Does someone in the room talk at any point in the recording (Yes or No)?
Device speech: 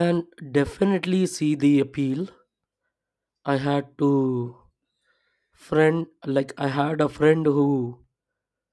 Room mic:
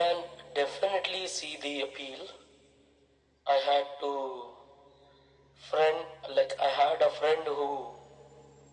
No